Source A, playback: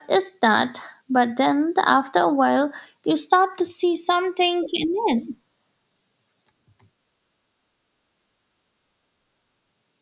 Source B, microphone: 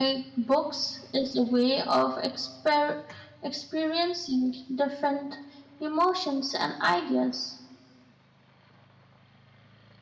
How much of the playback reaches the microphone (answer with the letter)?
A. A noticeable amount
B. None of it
B